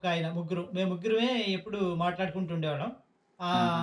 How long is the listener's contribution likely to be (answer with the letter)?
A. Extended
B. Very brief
B